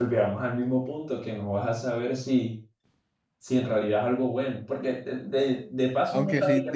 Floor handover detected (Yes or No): Yes